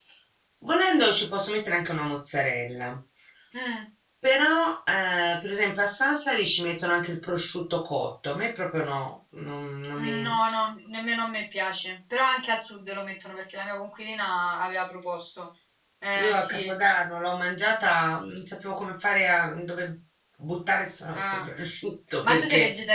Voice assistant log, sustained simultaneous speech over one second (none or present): none